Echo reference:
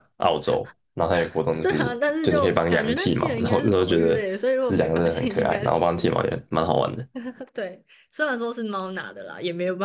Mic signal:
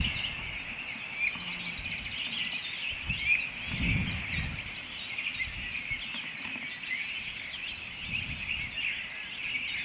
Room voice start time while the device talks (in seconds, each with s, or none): none